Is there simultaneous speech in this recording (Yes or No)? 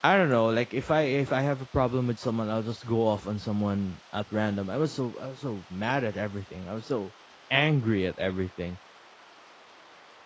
No